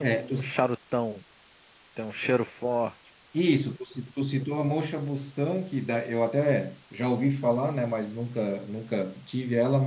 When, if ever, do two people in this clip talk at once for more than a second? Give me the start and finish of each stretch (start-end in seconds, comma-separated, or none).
none